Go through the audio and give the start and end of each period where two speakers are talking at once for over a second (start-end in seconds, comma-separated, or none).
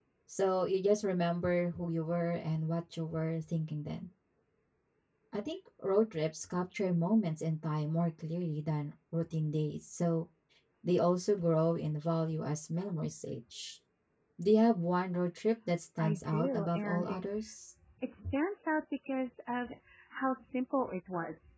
16.0-17.2